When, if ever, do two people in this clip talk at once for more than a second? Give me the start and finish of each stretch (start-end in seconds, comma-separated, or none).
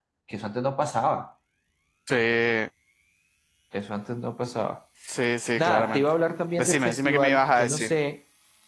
6.6-7.9